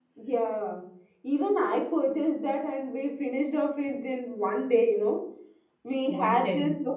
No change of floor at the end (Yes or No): Yes